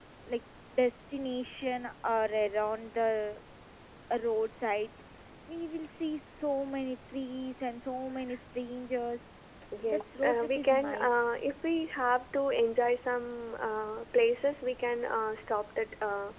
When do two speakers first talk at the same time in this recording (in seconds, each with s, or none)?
9.9 s